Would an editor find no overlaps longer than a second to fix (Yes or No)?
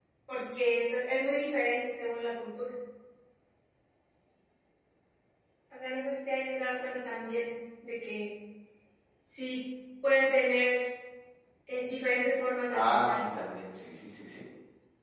Yes